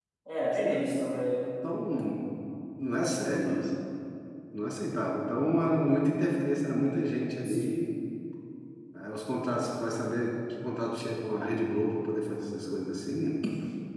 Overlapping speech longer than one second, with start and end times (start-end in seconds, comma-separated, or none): none